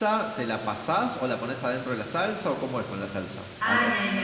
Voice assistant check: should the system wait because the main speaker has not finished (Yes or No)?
No